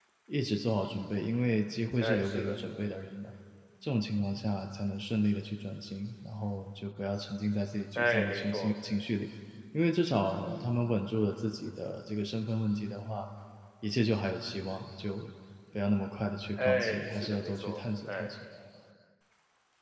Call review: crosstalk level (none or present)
present